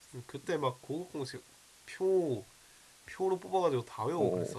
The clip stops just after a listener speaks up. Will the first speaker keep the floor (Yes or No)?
No